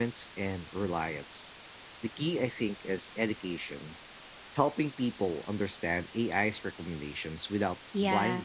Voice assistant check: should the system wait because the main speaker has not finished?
No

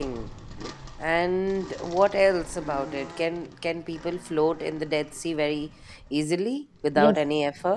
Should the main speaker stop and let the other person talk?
Yes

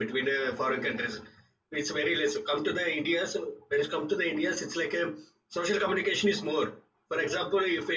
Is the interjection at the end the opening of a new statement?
No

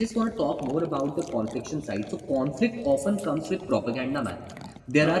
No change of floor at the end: Yes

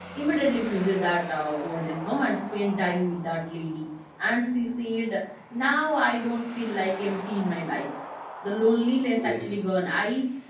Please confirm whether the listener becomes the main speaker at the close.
No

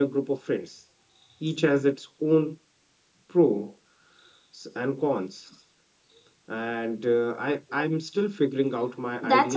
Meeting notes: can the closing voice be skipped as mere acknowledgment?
No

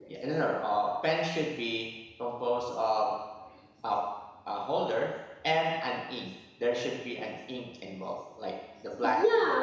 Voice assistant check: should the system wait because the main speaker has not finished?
No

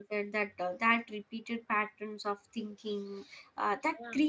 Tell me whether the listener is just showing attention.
Yes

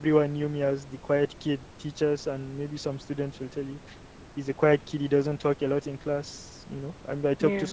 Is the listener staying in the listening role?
Yes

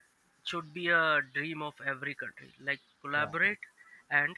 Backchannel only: Yes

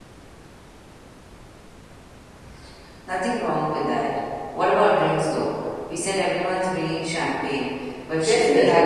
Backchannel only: No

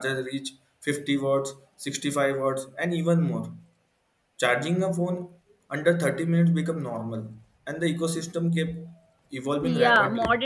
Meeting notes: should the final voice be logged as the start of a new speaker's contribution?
Yes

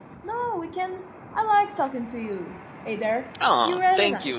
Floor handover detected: Yes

